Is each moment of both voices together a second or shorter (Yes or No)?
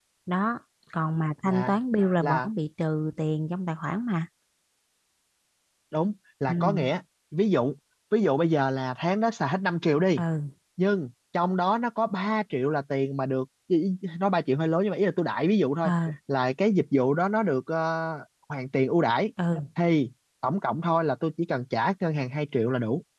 Yes